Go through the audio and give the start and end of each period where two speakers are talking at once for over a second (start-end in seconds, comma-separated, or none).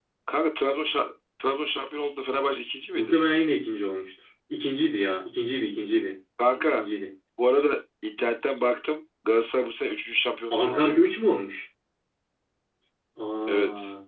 none